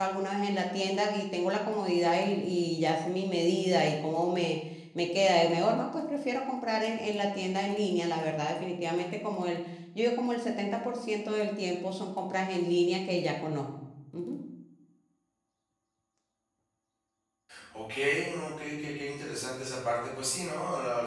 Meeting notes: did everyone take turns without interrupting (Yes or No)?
Yes